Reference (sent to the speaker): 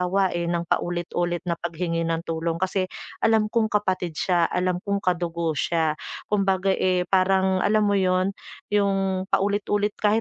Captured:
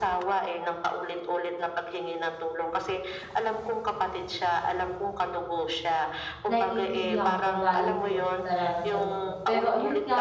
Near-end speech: present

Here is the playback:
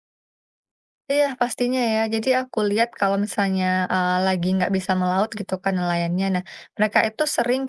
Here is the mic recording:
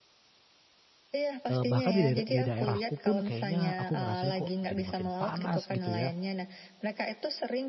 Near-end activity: present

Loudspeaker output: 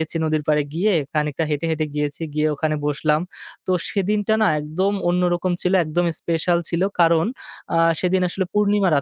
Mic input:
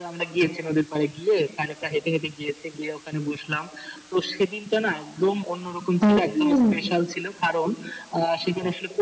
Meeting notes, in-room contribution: present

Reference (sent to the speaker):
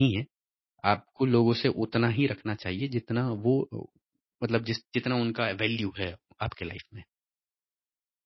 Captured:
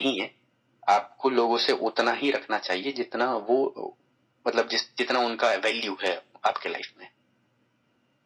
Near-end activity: none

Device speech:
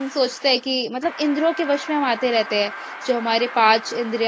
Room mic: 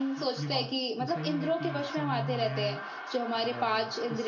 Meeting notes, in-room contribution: present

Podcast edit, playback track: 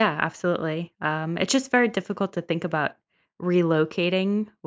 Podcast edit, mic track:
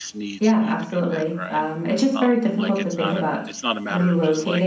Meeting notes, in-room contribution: present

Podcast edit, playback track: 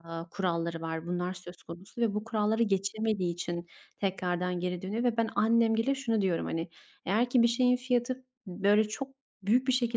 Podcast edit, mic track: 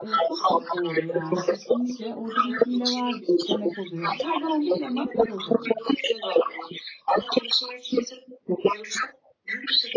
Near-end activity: present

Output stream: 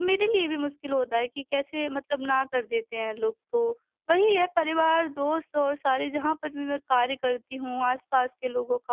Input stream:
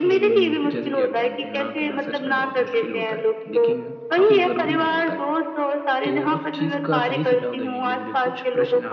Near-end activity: present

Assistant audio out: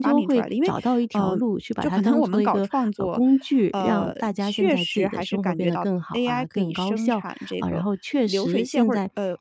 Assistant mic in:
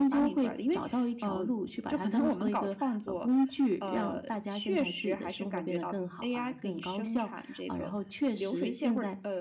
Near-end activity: none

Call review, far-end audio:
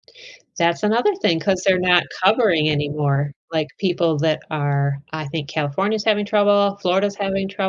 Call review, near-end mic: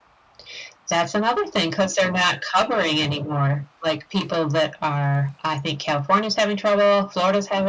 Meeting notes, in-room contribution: none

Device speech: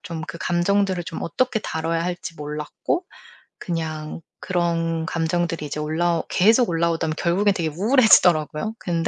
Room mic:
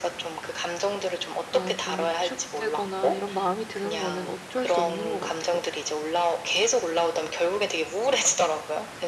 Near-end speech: present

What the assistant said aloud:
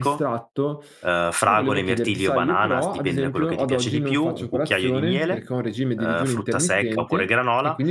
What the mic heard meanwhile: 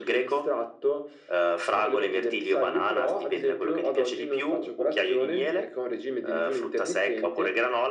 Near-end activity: none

